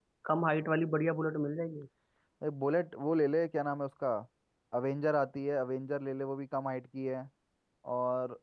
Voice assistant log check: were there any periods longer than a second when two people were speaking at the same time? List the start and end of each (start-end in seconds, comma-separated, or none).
none